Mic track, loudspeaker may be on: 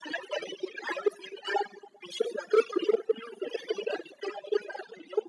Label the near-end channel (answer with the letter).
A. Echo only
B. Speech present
A